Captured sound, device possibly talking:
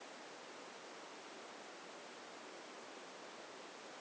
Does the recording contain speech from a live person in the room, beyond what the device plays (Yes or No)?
No